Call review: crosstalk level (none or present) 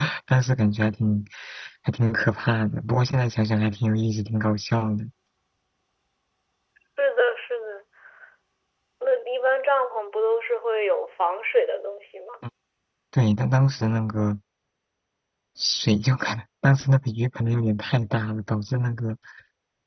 none